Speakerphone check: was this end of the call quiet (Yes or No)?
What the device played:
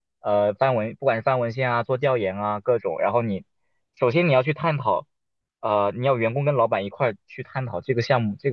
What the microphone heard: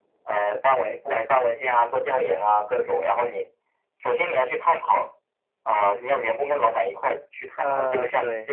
No